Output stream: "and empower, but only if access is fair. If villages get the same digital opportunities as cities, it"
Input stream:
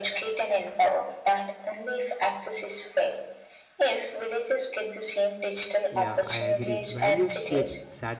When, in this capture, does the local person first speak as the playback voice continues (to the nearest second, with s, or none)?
6 s